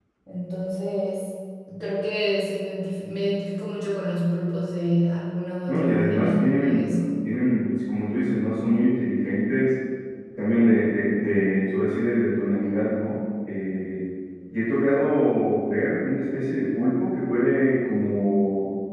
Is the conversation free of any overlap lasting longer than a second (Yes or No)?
No